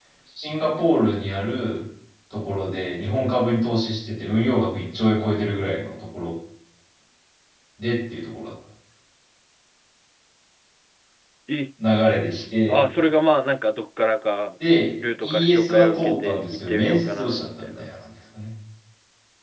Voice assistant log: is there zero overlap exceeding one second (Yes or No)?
No